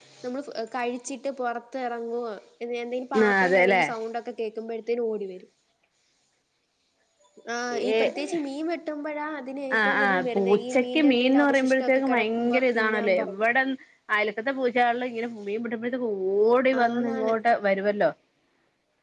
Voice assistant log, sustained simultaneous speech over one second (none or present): present